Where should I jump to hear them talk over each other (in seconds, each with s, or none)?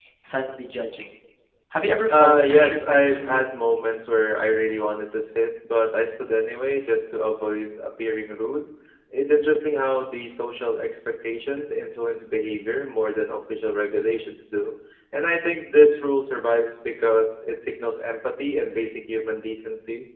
2.1 s